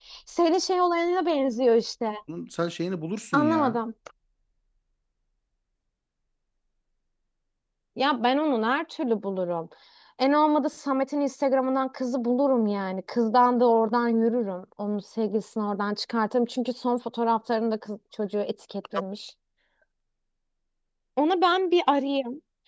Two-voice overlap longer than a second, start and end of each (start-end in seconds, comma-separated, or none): none